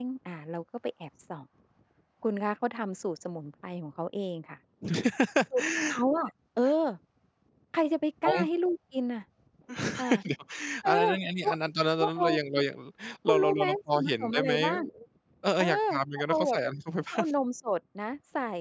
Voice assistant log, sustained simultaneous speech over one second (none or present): present